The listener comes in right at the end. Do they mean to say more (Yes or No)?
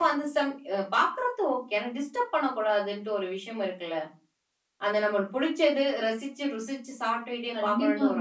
Yes